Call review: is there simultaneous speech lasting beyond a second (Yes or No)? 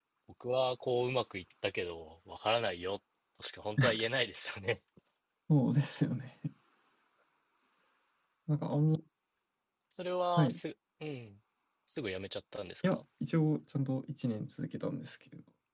No